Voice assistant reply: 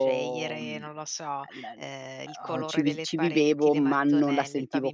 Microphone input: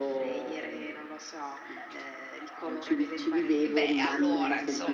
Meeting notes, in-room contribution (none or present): present